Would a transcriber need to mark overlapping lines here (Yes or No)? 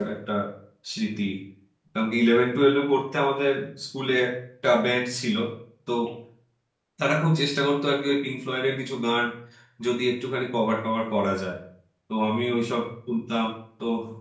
No